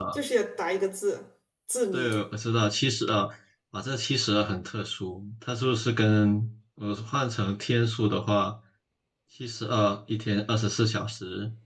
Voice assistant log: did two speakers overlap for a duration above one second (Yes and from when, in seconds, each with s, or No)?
No